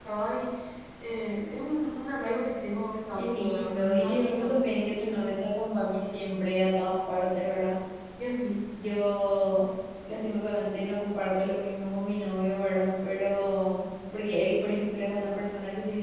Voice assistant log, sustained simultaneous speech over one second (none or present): present